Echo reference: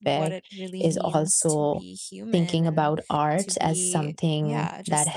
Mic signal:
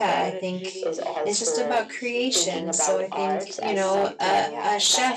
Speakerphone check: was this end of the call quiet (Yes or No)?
No